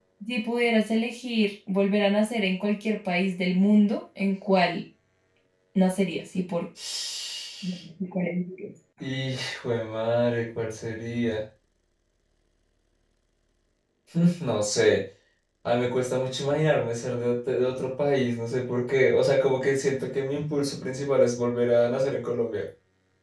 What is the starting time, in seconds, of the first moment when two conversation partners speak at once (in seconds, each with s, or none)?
none